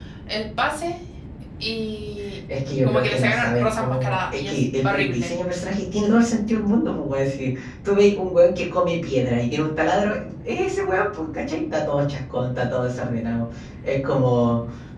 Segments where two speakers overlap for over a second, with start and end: 2.8-5.3

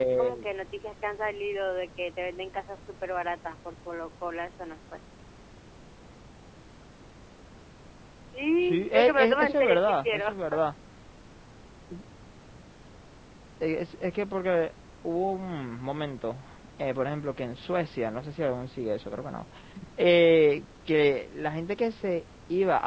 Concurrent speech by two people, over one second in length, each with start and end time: 8.7-10.3

